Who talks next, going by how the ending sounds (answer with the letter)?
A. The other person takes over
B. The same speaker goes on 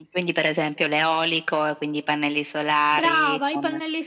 A